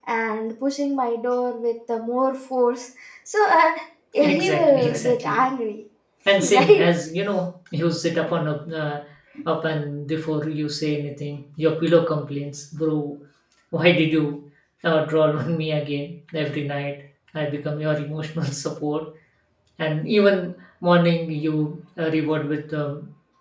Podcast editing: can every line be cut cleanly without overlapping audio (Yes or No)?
No